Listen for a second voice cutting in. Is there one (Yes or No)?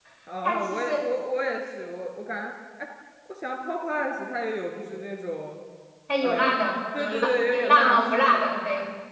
Yes